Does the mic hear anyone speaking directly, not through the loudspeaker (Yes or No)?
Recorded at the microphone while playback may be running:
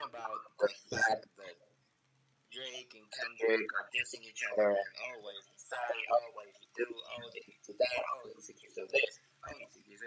No